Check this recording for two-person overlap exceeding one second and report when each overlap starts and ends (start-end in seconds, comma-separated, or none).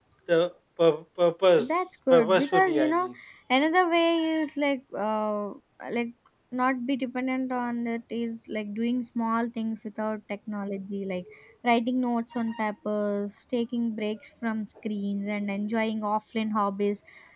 1.6-3.1